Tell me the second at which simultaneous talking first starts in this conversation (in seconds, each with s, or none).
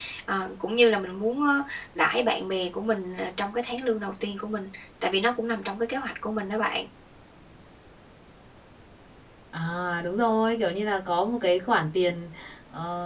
none